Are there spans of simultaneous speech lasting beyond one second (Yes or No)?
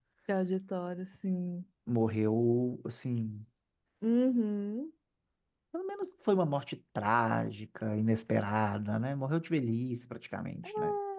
No